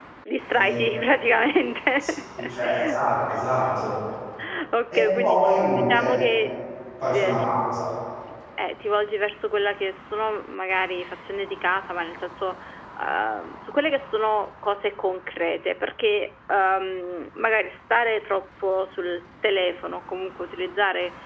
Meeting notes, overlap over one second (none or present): present